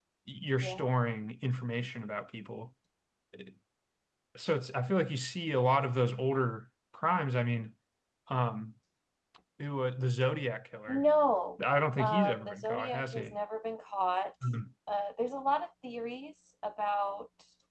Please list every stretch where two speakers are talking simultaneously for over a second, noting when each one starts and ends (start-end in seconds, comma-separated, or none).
12.0-13.3